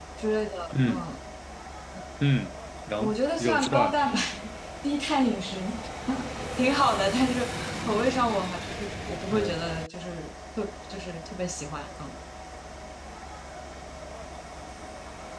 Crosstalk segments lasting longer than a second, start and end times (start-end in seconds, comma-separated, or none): 3.0-4.2